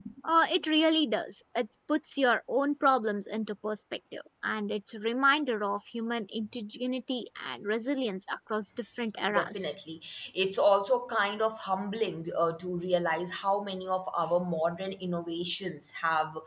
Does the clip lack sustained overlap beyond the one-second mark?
Yes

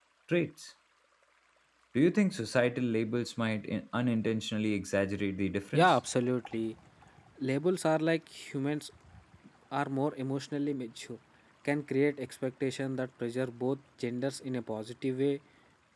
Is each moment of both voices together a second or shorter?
Yes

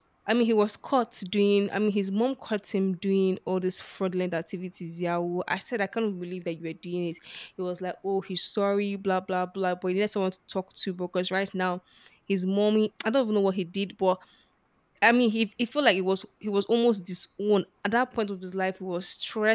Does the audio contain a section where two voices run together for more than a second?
No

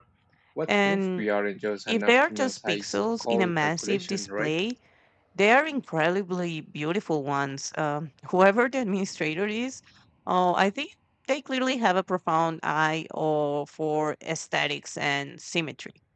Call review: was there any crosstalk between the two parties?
Yes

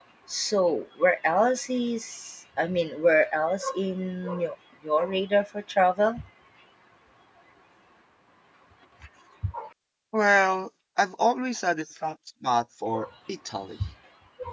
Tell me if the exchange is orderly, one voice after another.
Yes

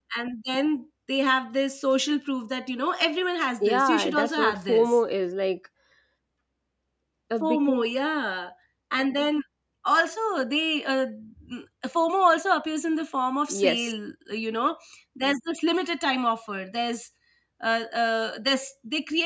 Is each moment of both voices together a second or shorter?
No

